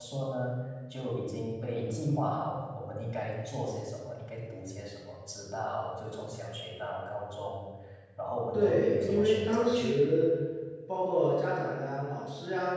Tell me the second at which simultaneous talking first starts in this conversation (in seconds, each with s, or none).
8.5 s